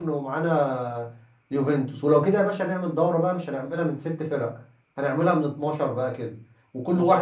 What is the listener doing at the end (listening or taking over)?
listening